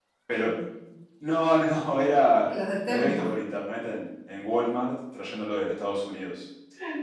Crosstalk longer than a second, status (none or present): none